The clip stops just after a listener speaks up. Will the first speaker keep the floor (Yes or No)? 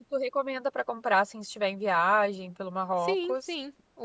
No